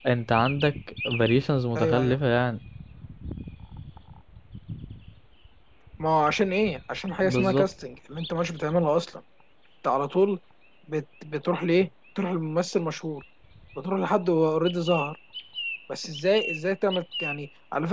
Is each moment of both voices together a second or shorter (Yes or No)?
Yes